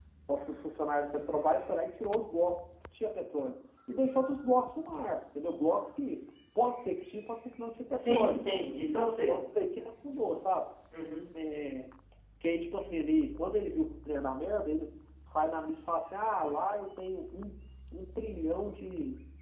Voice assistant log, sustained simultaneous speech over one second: none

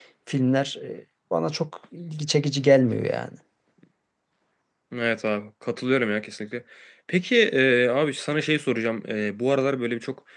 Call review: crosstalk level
none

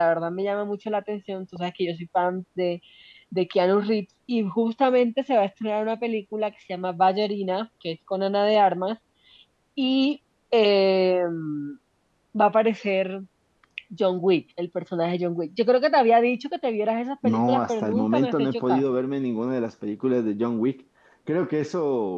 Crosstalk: present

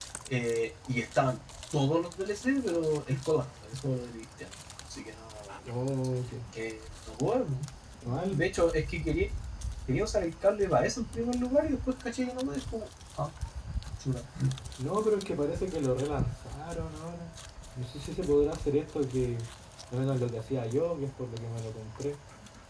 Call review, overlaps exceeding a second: none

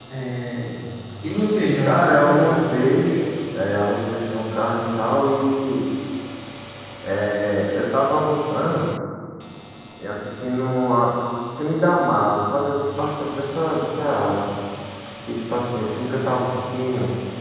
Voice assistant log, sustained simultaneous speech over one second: present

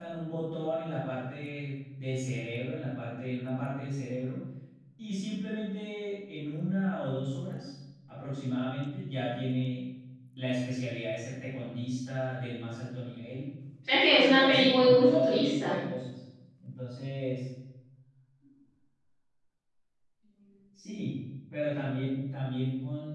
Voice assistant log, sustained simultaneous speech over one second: present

